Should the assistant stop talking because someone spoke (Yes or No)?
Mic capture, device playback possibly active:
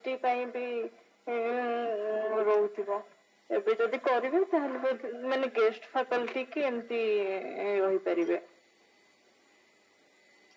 No